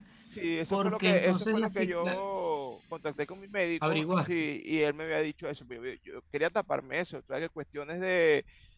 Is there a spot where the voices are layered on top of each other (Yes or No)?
Yes